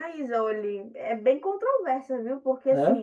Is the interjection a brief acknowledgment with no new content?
Yes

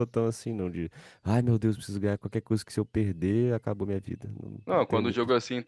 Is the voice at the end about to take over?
Yes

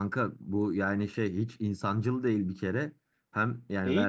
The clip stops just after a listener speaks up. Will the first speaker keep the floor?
Yes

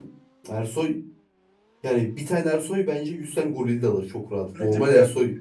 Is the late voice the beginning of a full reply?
Yes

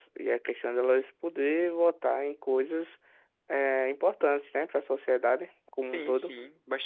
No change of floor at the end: No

